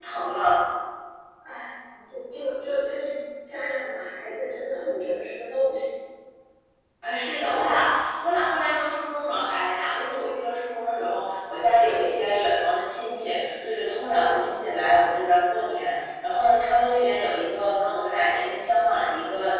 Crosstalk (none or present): none